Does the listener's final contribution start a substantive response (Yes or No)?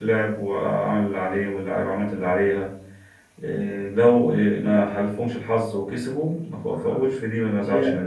Yes